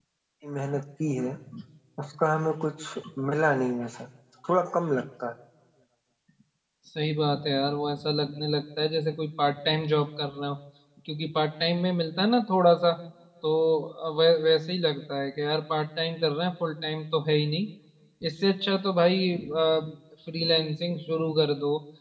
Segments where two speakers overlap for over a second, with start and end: none

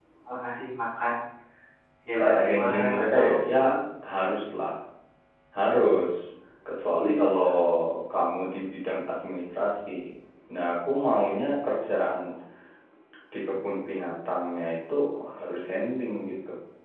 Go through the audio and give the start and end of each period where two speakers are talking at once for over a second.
2.2-3.5

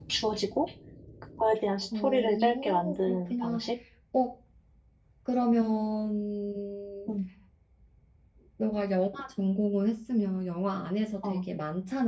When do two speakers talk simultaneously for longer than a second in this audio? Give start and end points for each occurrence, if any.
1.9-3.6

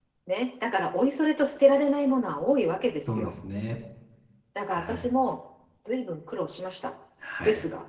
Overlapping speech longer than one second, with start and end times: none

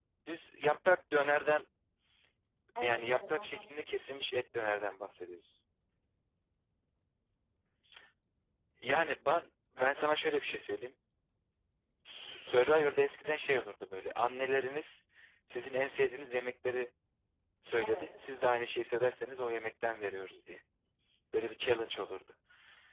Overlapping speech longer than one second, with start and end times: 2.8-4.2

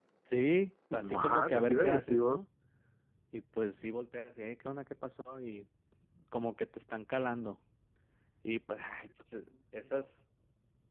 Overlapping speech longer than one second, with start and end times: 0.9-2.4

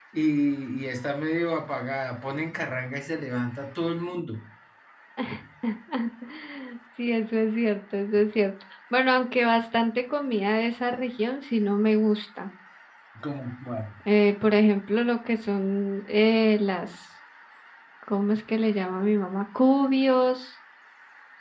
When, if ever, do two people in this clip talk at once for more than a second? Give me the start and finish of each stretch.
none

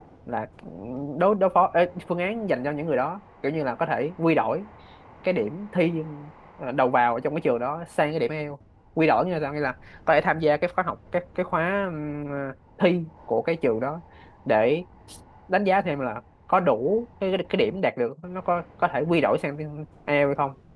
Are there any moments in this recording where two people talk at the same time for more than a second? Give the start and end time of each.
none

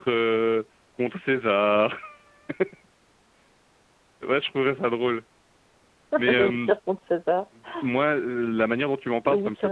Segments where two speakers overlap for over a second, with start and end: none

